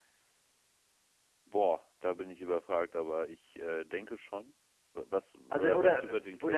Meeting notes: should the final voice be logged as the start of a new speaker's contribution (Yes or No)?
Yes